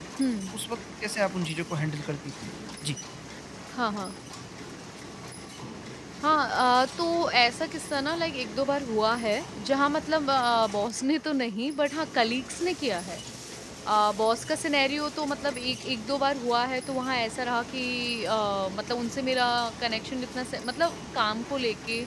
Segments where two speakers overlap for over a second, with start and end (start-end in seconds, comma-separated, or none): none